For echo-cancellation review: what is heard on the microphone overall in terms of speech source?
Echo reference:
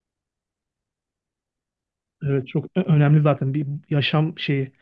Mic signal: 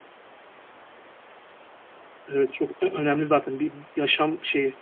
echo only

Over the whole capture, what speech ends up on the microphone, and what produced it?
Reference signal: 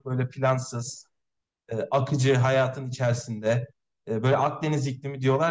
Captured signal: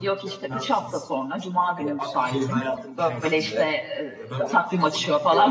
both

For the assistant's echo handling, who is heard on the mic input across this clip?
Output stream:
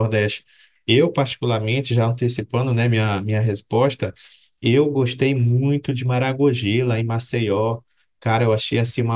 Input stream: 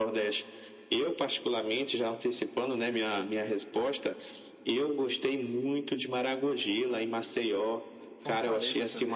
both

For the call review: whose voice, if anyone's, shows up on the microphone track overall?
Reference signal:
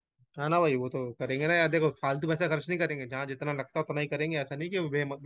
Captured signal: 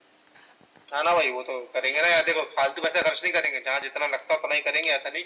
echo only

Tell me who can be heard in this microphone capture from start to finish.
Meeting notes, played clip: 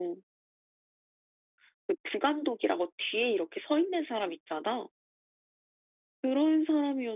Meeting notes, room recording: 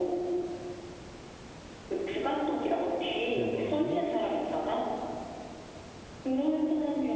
both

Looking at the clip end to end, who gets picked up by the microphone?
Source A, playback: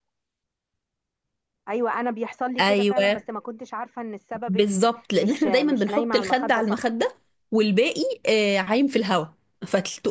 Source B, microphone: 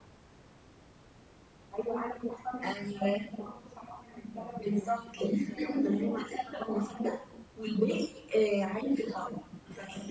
echo only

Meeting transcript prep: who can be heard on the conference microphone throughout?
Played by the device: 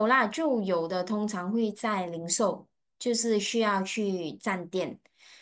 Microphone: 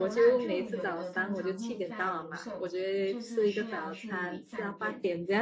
both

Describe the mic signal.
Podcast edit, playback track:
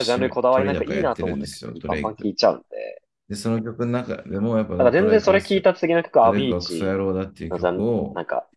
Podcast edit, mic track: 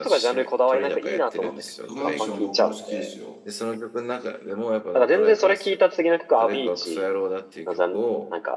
both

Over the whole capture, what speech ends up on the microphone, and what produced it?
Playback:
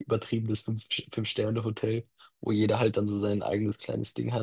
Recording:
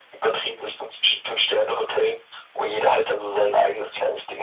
echo only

